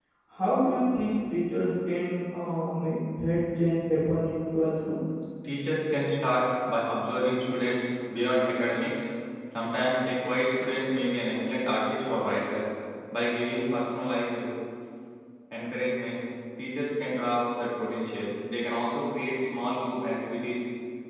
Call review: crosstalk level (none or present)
none